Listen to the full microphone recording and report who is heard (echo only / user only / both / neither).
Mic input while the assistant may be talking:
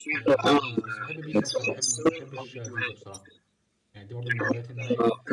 both